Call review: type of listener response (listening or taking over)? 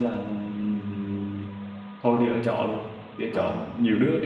listening